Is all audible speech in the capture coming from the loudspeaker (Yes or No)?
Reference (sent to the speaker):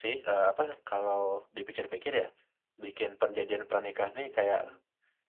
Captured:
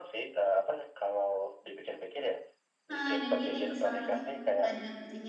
No